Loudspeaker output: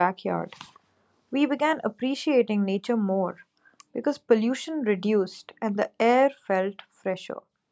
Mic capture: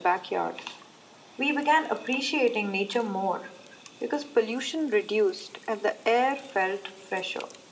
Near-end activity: none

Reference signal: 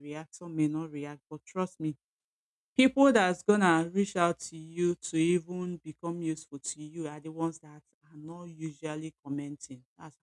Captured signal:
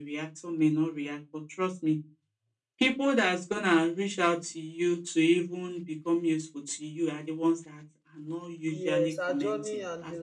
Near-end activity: present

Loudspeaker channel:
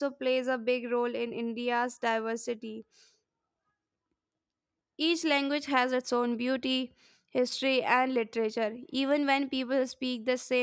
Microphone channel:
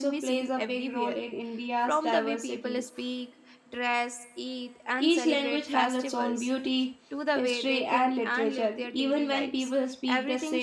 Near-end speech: present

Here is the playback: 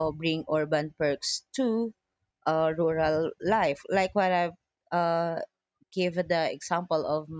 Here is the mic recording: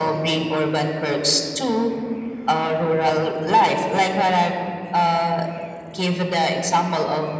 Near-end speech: none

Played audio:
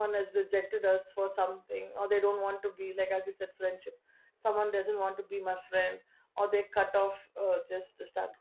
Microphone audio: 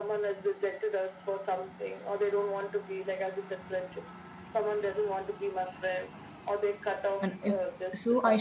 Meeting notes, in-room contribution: present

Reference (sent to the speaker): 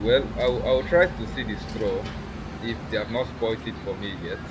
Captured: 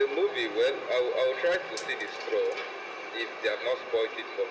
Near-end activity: none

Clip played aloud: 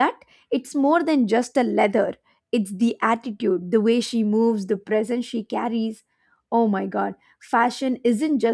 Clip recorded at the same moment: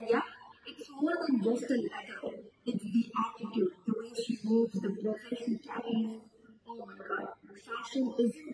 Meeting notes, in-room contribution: none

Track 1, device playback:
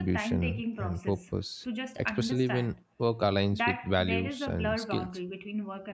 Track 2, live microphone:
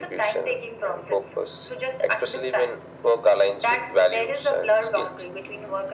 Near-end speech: none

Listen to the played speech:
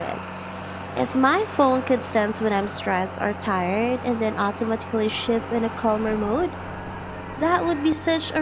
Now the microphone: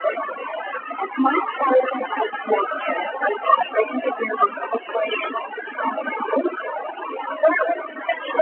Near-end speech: none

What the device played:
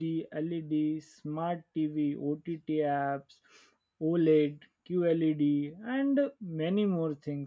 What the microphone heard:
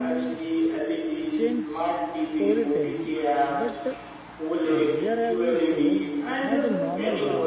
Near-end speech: present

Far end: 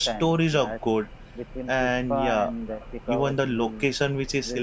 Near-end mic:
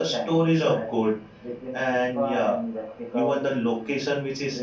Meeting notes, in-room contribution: none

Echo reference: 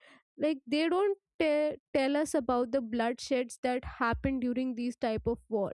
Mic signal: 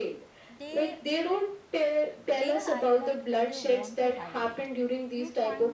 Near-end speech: present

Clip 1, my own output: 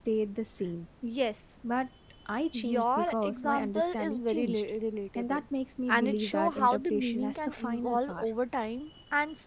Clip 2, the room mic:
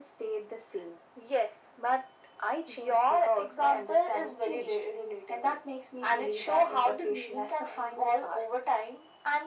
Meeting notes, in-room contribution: none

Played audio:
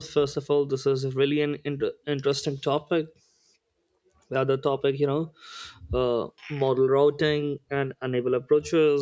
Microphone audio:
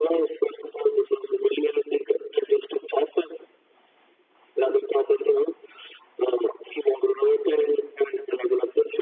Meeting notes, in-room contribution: none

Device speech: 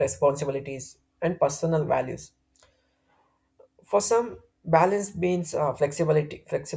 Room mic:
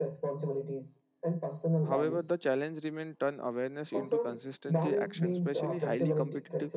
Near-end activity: present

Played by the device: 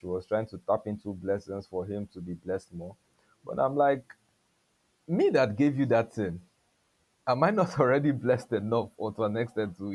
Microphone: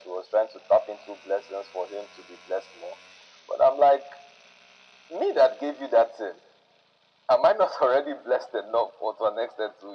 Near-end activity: none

